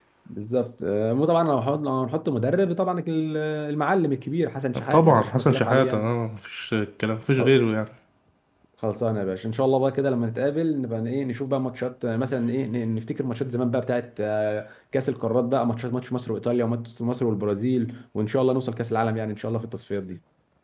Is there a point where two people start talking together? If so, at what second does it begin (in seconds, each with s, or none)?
4.9 s